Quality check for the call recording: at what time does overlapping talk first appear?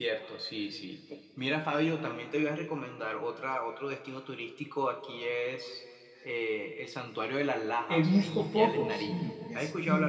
7.9 s

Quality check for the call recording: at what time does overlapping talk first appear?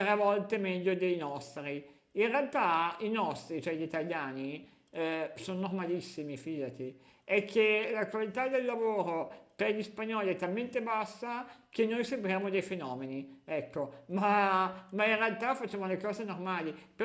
none

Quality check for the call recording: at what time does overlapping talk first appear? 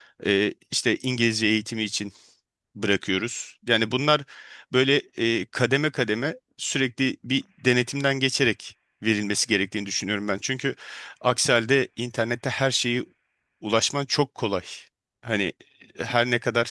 none

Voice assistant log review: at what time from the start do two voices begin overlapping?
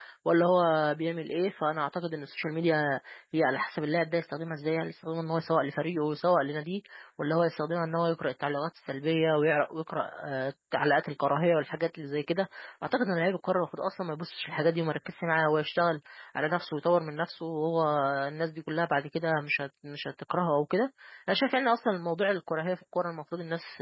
none

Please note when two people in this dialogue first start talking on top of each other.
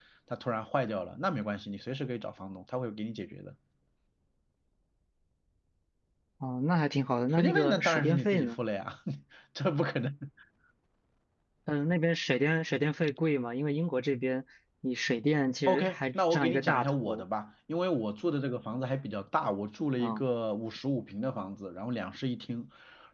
7.3 s

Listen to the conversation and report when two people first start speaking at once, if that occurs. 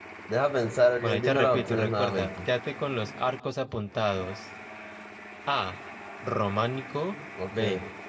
1.0 s

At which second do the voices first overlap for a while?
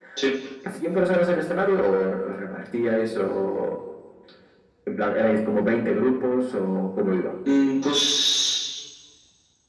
none

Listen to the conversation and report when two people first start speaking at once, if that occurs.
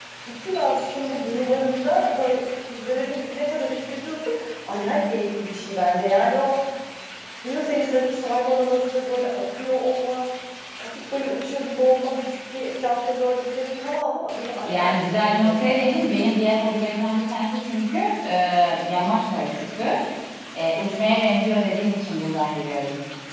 14.6 s

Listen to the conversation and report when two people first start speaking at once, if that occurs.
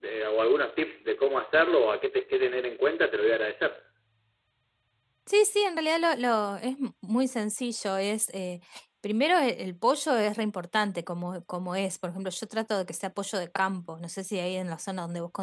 none

